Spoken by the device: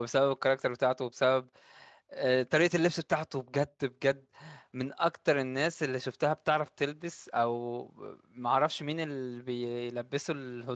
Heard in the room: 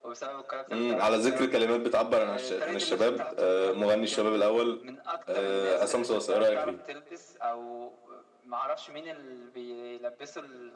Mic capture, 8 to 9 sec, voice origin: echo only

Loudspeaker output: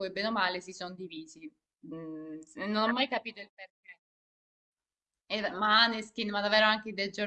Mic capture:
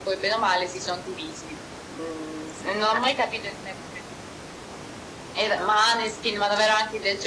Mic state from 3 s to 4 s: echo only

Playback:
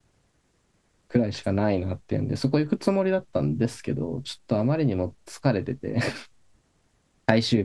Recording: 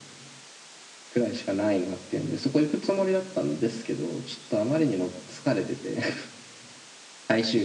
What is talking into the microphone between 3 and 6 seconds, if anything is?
echo only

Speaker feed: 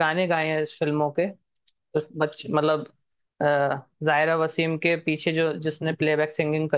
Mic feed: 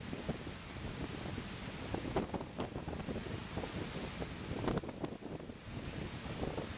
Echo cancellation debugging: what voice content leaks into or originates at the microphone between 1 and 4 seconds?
neither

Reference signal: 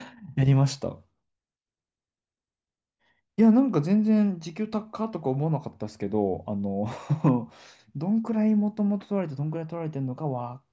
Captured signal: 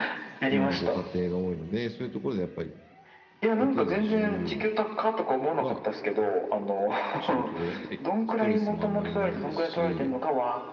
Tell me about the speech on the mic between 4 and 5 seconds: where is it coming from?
both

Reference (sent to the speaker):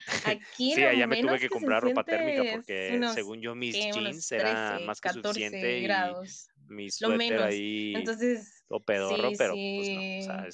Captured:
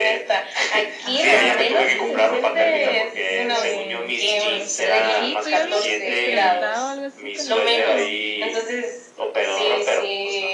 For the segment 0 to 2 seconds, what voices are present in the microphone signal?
both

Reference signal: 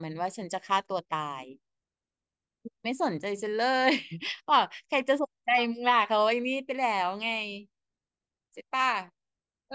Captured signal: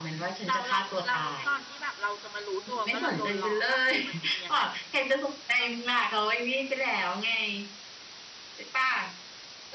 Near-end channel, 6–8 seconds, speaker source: echo only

